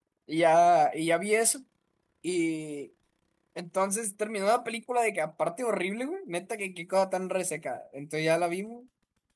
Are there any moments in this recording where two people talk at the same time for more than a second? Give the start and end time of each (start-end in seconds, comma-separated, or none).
none